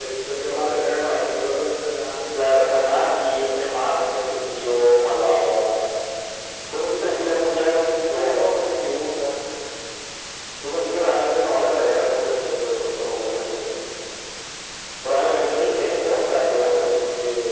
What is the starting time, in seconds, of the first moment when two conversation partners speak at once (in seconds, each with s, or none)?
2.3 s